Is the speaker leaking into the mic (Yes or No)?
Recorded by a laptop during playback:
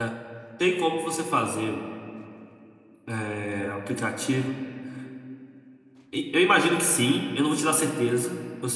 No